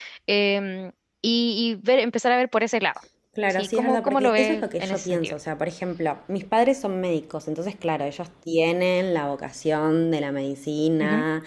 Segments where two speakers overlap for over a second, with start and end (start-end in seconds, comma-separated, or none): 3.5-5.3